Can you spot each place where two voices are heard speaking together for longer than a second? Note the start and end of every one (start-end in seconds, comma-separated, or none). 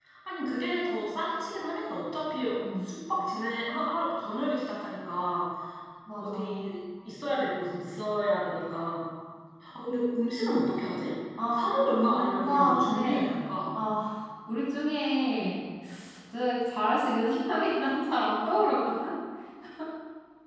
11.5-13.2